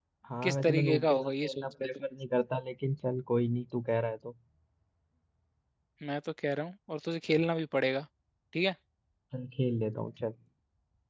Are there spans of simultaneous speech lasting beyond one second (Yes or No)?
Yes